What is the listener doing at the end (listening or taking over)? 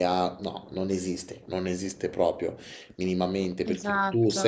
listening